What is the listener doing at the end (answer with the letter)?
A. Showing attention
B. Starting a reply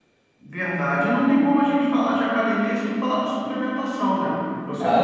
B